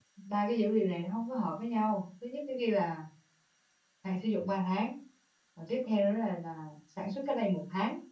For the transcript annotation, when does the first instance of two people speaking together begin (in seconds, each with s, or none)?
none